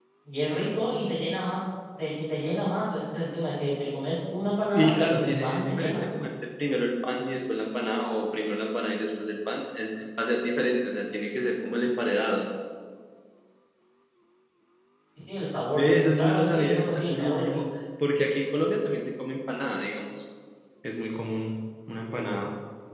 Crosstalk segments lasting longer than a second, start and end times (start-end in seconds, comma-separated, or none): 4.7-6.0, 15.8-17.6